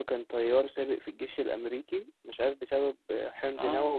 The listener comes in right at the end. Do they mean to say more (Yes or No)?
No